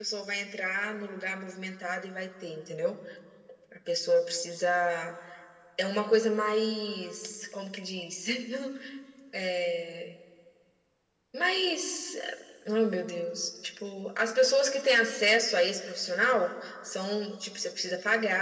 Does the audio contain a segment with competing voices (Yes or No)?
No